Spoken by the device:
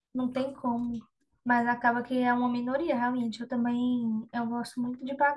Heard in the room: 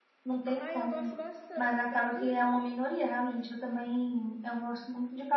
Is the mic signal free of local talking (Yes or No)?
No